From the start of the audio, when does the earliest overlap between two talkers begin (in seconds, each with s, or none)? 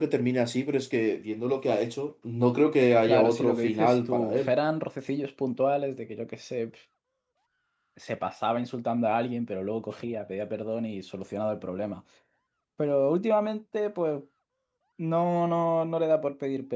3.0 s